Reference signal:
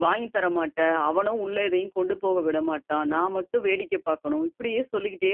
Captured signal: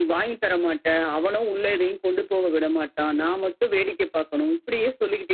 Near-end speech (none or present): none